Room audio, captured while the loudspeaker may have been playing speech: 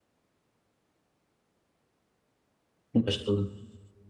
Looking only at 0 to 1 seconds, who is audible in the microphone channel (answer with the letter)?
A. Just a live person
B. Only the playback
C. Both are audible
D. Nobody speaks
D